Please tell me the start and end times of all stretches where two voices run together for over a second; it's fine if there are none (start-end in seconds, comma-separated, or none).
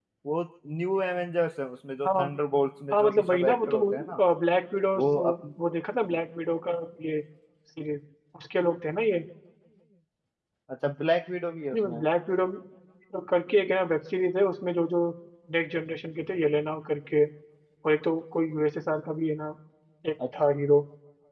2.9-4.2